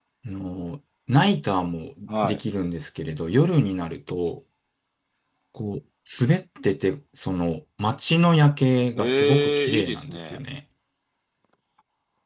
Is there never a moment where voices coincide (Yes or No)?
No